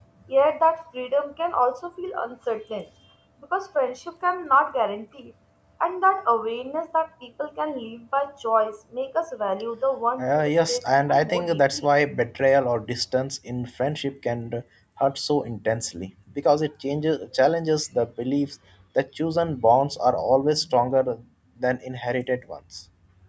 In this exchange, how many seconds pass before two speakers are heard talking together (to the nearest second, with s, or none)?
10 s